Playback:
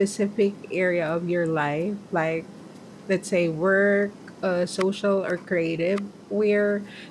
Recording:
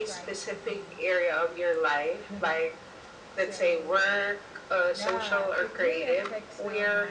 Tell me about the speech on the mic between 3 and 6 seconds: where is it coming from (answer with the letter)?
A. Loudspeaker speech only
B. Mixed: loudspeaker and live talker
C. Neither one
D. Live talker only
B